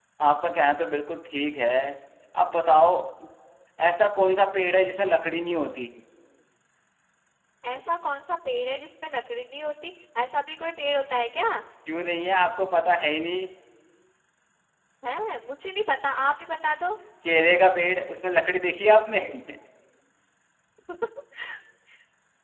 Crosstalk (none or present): none